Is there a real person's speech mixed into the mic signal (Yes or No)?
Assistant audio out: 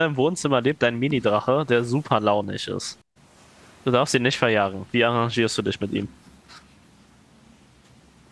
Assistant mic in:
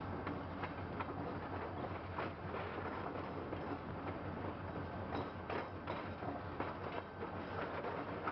No